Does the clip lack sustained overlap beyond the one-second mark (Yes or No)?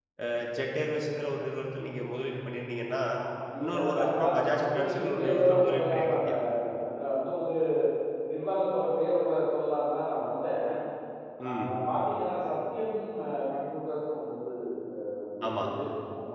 No